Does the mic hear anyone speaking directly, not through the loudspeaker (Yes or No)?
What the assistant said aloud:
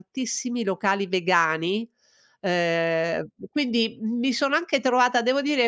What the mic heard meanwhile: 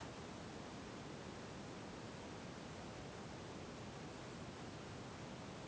No